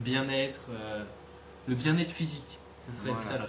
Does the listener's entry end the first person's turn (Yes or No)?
Yes